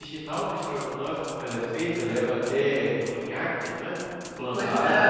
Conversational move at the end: taking over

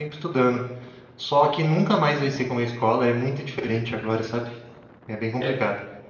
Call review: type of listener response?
taking over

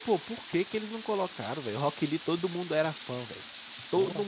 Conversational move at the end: taking over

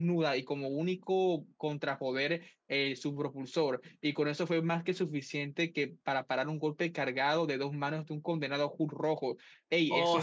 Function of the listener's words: taking over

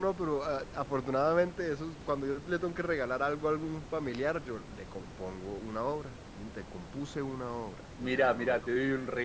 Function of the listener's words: taking over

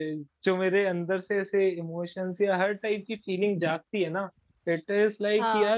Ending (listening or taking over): listening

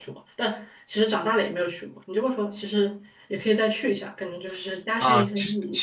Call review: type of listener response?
taking over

